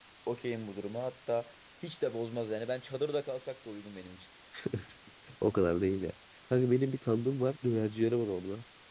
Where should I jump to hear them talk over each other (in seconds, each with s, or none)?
none